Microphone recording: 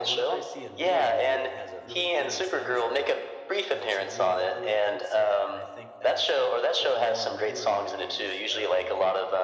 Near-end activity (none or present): present